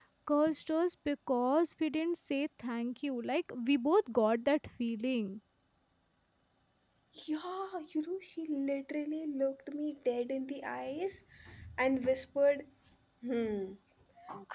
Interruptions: none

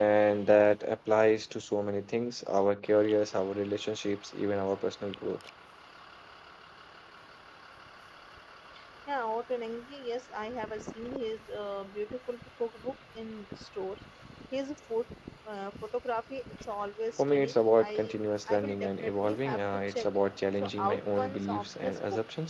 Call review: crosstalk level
present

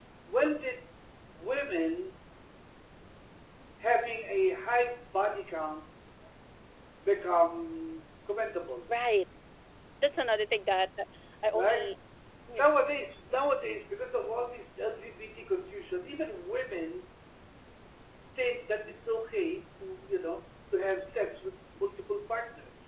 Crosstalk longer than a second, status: none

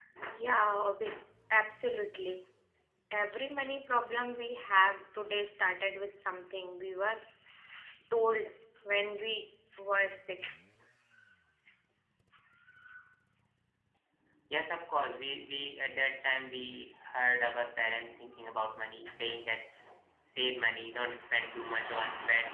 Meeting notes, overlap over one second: none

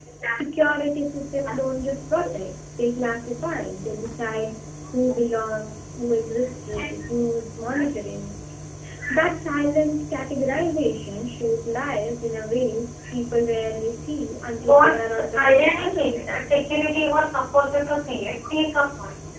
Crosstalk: present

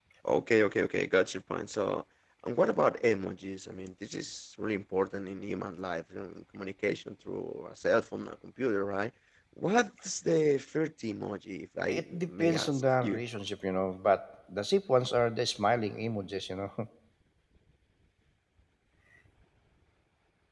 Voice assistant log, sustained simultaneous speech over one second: present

